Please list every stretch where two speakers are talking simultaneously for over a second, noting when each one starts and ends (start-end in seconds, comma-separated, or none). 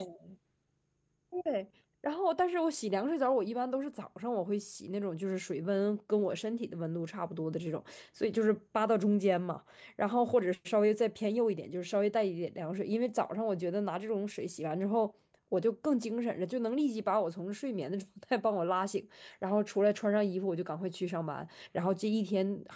none